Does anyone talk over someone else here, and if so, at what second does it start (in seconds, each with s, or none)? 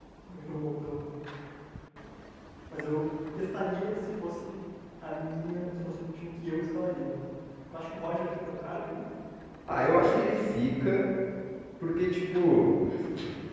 none